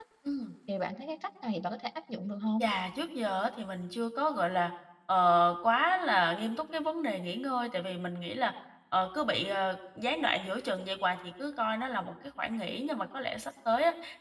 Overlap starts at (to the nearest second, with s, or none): none